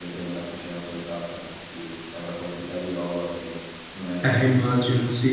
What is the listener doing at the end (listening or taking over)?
taking over